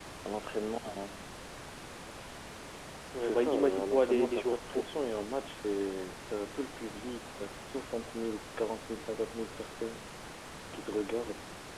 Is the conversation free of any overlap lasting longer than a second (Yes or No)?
No